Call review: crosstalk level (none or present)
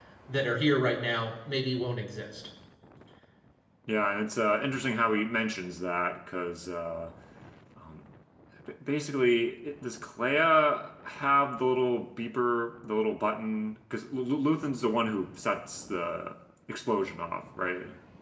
none